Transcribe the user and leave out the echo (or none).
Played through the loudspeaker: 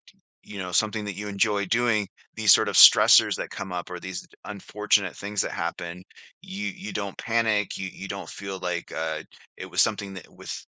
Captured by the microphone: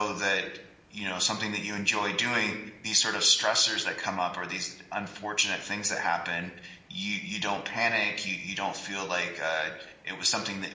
none